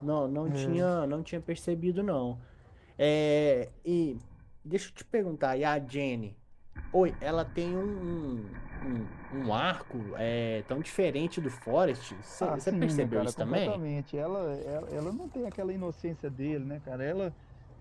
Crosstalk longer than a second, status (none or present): present